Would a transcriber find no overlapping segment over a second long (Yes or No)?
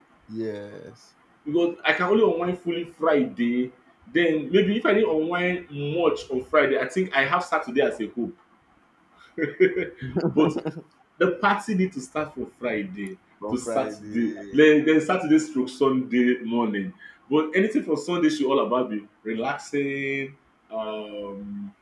No